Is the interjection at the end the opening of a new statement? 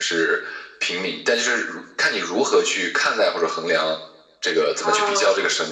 Yes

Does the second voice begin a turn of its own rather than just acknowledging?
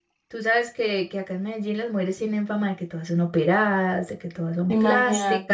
No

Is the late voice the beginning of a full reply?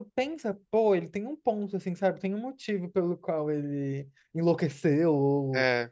No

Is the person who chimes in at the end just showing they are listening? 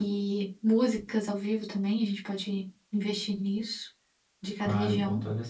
No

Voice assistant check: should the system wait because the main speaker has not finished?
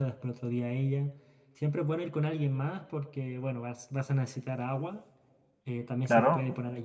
Yes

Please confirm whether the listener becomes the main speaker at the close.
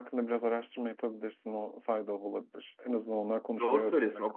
Yes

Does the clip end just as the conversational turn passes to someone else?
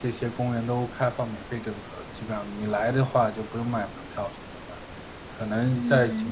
No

